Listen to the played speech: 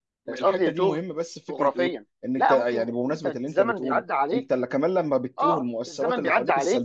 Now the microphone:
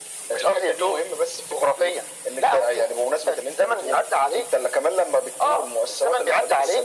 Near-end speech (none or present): none